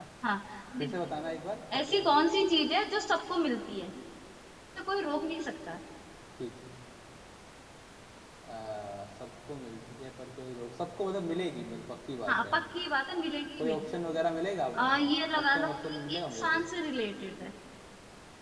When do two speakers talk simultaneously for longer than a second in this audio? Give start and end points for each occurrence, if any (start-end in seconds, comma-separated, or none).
15.4-16.6